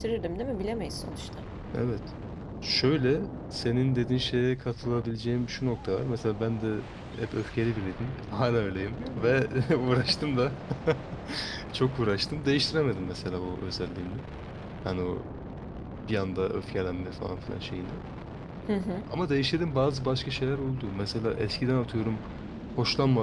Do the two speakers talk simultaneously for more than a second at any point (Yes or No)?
No